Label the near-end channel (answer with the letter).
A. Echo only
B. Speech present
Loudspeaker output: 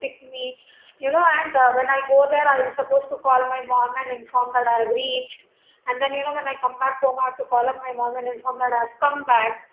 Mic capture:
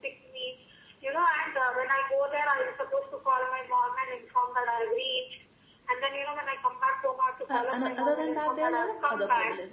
B